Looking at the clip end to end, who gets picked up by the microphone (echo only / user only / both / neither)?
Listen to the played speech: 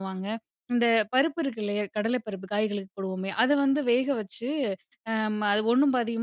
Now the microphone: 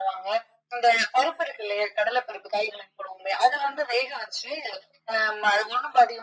echo only